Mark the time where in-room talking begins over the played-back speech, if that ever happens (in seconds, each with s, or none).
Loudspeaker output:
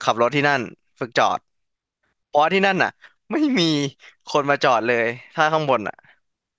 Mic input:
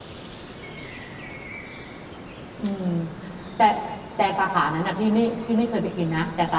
2.6 s